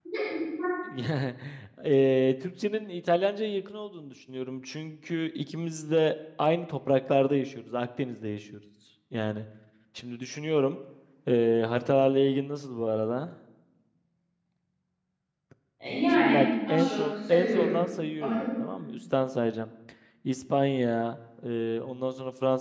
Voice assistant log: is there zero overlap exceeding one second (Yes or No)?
No